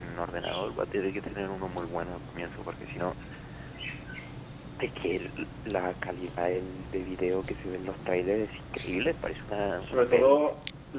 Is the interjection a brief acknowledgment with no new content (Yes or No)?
No